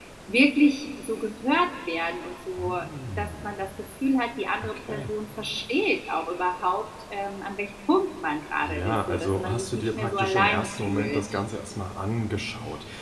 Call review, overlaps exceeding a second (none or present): present